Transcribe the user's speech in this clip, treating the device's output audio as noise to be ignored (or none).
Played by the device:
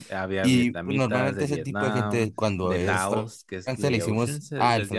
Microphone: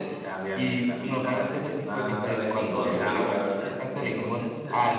cada quien con su clica, ¿verdad?